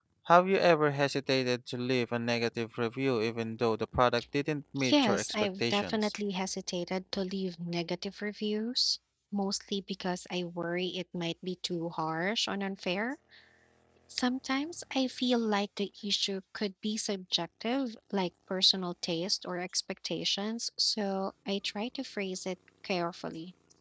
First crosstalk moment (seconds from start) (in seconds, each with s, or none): 4.9 s